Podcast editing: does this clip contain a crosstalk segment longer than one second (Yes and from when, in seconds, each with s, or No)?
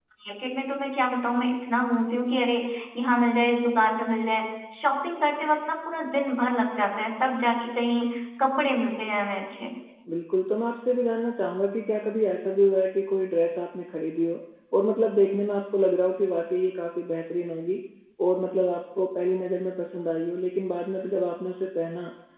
No